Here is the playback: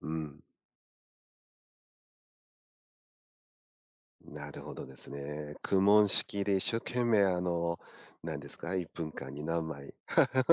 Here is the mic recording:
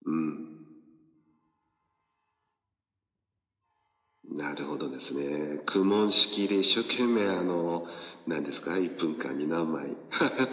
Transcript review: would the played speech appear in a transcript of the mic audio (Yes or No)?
Yes